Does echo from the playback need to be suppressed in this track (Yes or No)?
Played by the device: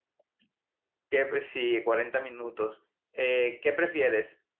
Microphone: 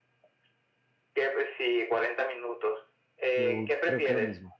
Yes